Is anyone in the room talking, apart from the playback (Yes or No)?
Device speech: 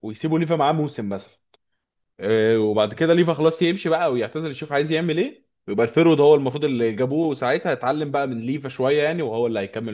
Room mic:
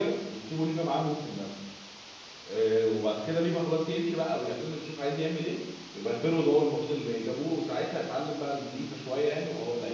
No